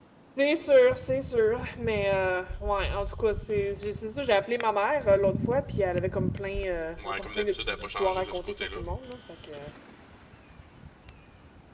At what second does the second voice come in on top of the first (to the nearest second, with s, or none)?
7 s